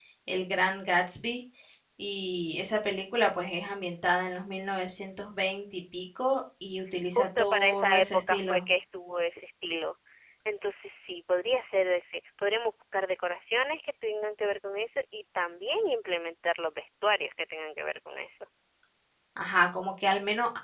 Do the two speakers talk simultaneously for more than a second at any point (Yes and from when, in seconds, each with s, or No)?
Yes, from 7.2 s